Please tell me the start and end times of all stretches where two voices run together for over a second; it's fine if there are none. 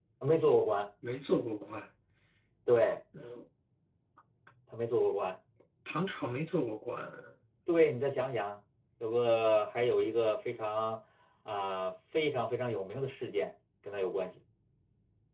none

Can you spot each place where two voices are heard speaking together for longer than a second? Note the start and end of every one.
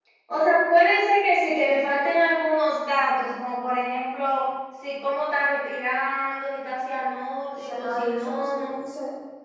7.5-8.7

